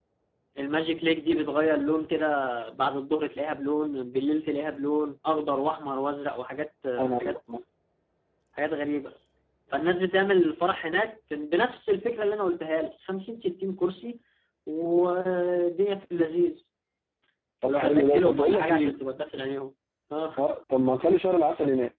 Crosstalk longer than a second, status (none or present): present